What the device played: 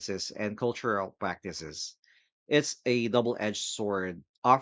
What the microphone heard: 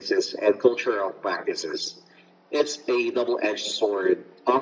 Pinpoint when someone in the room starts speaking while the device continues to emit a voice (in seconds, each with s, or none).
none